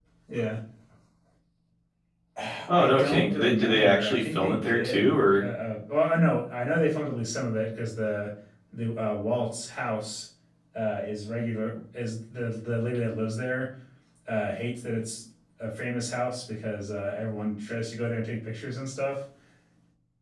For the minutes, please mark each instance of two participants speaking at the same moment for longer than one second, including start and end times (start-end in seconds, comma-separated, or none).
2.7-5.5